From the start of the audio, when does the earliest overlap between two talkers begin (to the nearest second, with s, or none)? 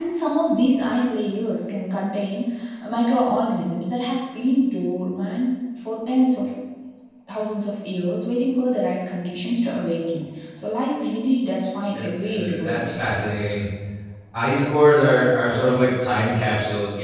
12 s